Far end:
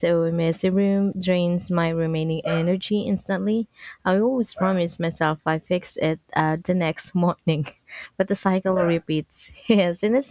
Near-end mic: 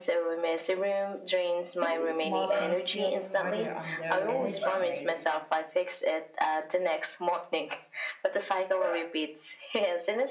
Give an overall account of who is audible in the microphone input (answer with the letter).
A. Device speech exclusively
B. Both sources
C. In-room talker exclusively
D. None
B